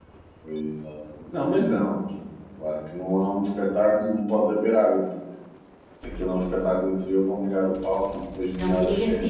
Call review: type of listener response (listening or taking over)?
taking over